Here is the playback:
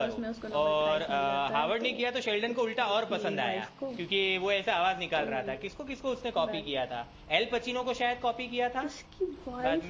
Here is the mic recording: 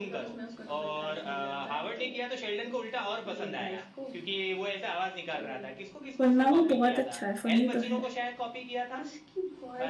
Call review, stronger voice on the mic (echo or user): user